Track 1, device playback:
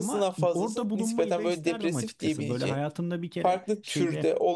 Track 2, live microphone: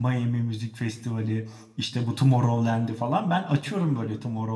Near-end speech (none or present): present